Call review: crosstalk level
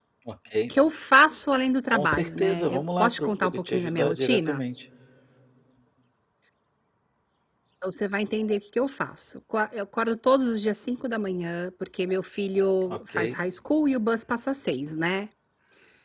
present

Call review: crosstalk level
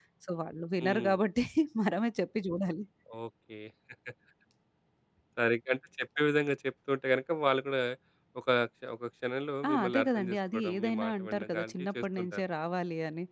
present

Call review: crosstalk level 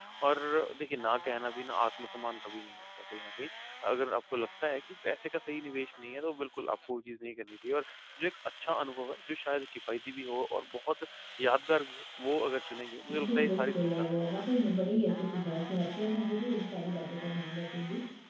present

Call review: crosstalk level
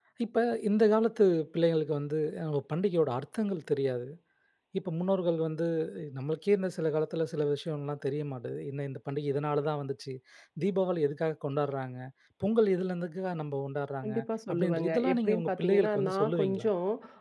present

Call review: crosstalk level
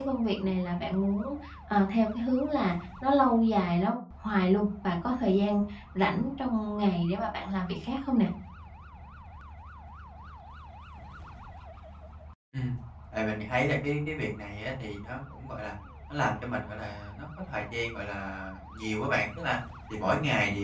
none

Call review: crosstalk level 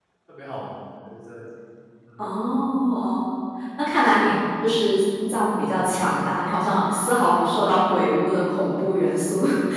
none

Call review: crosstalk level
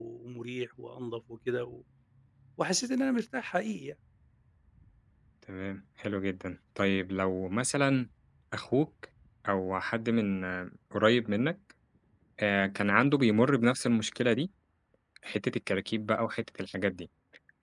none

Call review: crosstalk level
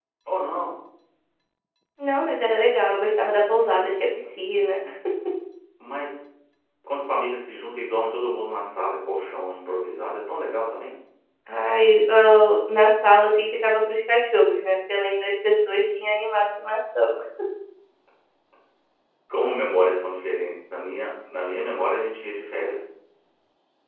none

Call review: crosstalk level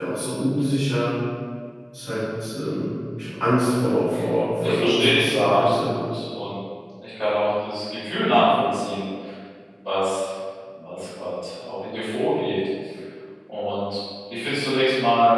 present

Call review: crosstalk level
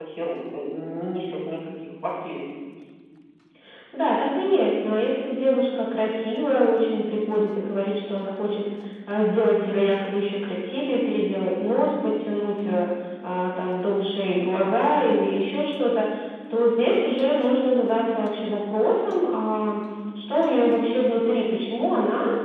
none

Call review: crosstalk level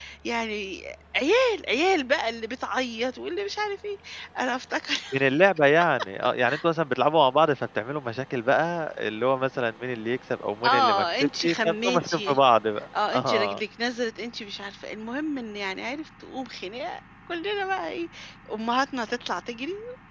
present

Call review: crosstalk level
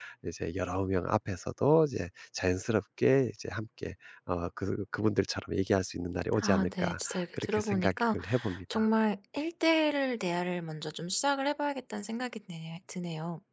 present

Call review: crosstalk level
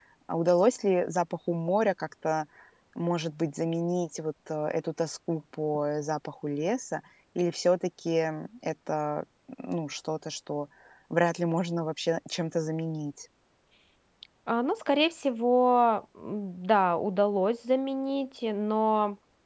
none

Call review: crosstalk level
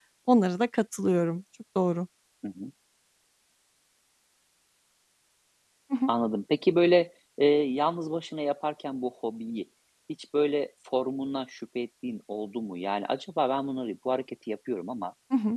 none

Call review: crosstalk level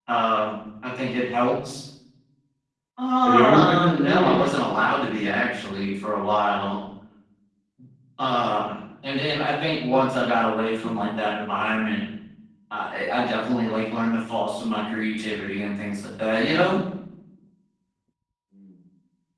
present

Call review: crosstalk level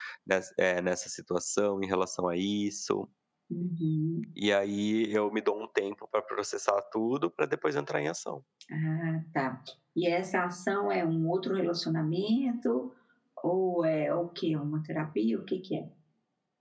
none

